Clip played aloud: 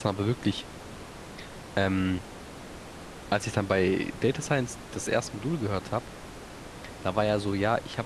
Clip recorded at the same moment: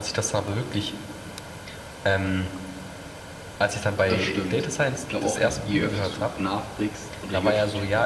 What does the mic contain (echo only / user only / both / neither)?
both